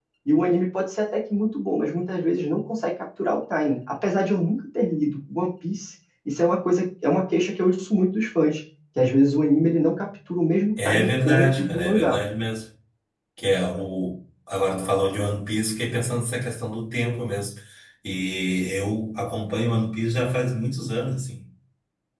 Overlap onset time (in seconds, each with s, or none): 10.8 s